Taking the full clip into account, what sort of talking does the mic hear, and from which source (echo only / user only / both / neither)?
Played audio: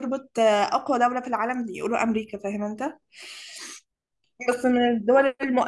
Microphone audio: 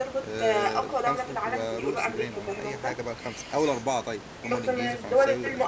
both